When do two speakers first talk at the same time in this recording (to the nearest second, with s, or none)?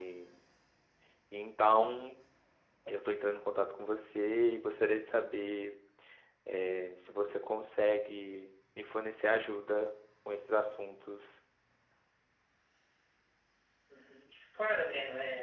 none